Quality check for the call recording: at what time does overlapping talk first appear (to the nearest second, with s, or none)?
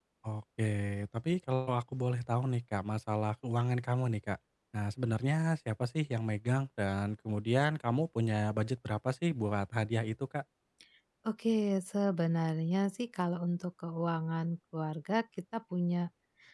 none